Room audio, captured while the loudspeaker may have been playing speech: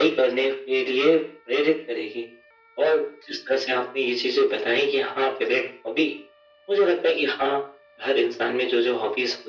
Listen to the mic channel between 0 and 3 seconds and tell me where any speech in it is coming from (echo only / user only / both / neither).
echo only